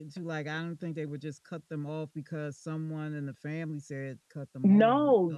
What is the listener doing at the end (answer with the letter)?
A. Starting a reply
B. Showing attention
A